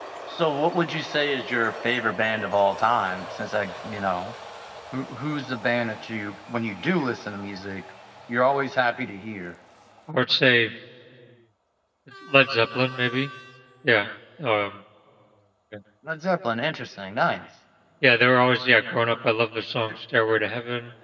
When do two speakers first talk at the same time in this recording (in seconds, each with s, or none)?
none